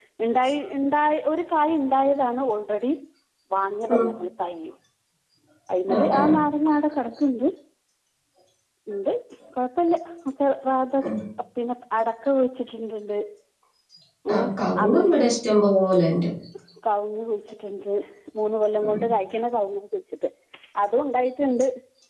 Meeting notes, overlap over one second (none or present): none